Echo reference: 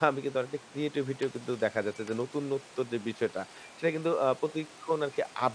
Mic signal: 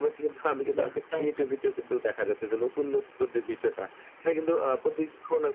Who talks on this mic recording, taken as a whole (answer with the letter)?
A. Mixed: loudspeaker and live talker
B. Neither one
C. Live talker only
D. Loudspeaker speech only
A